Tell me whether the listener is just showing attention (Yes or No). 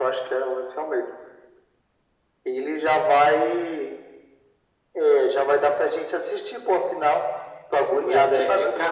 No